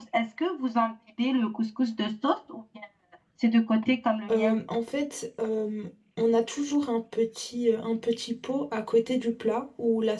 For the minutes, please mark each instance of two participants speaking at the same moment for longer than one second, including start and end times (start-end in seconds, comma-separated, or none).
none